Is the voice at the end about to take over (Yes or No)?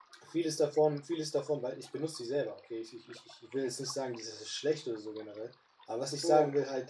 No